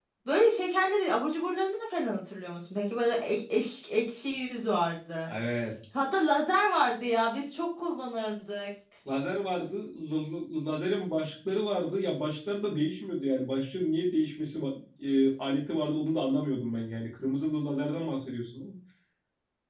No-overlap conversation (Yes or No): Yes